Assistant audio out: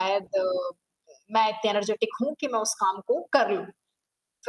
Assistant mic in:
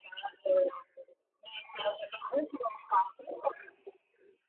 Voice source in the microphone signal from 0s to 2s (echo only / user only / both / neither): echo only